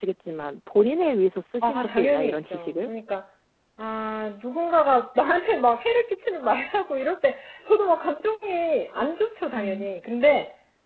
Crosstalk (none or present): present